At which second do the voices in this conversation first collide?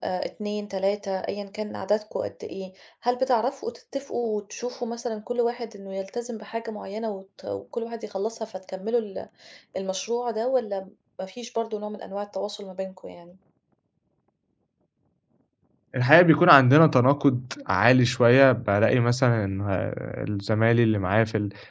none

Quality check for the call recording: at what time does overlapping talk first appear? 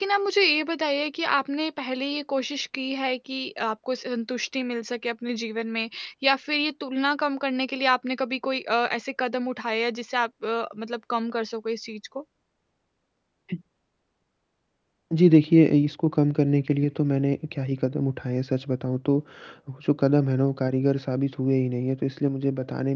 none

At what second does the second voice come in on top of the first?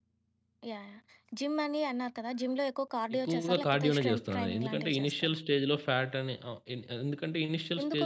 3 s

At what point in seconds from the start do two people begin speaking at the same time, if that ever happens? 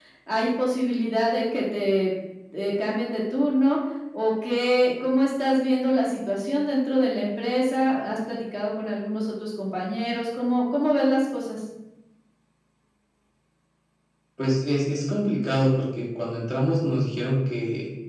none

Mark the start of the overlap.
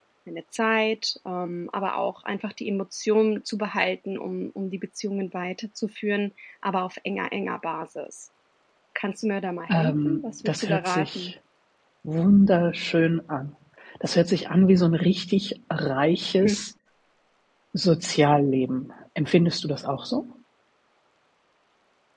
10 s

